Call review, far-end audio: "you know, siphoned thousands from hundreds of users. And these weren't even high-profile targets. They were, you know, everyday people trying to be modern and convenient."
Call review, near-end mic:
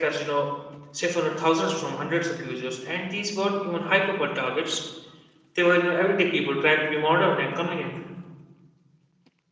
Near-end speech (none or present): none